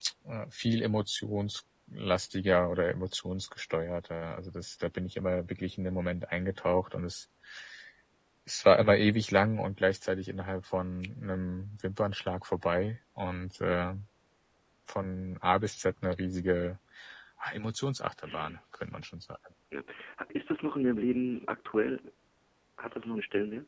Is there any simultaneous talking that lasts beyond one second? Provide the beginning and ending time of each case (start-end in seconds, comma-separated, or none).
none